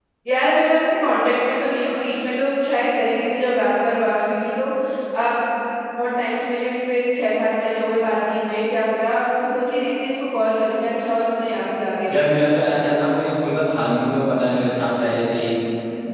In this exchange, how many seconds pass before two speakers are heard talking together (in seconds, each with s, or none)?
none